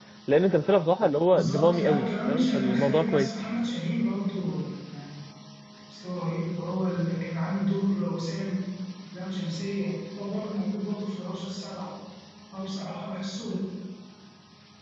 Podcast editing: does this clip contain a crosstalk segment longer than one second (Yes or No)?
Yes